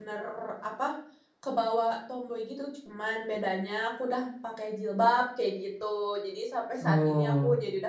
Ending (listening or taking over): listening